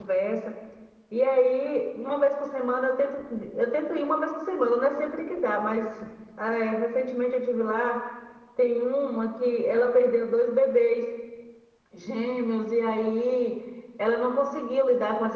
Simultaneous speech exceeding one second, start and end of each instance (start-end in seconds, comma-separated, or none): none